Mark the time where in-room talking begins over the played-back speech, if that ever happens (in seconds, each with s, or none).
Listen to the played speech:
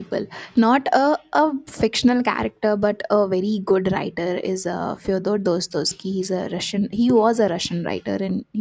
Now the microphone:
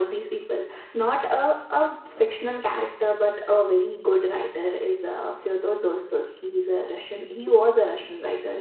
none